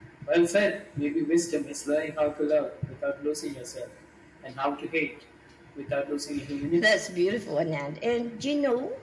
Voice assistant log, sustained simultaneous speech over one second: none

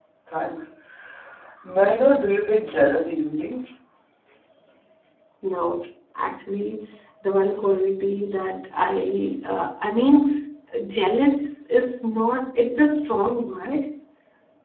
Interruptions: none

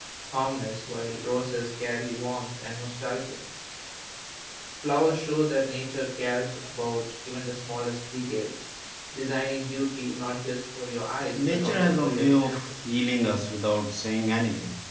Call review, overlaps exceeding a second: present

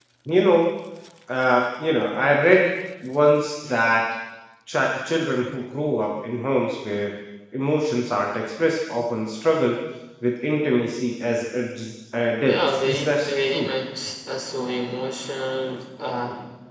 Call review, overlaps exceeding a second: present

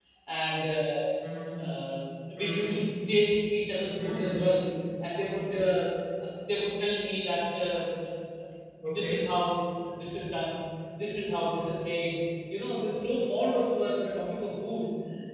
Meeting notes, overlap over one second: none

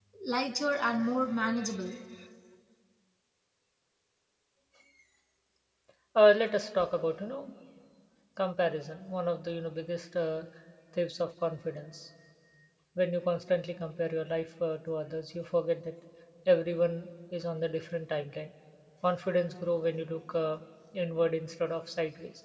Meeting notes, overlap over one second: none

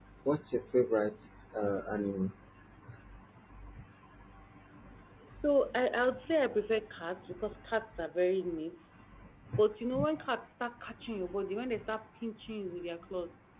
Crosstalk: none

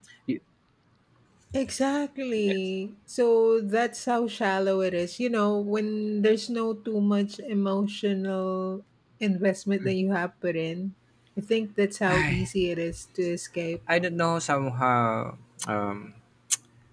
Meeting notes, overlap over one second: none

